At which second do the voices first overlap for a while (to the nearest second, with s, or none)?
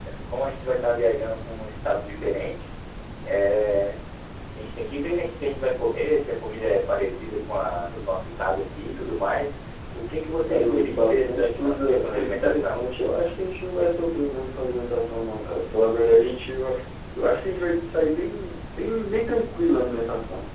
10 s